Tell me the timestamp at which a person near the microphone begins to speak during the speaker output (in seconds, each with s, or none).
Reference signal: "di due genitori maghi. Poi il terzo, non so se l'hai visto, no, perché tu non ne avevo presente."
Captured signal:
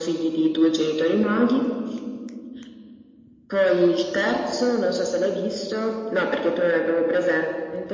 none